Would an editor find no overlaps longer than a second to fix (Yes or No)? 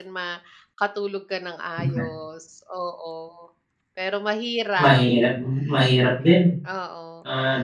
Yes